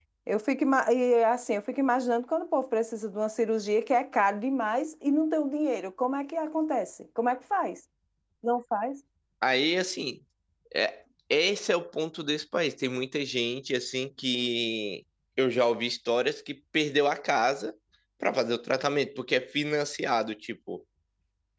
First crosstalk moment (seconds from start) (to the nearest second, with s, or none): none